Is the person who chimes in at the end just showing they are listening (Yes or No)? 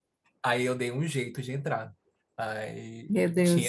Yes